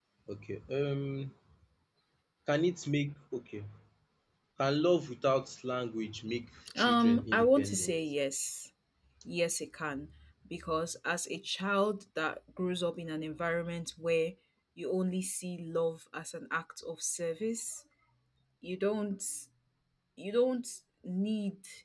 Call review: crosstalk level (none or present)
present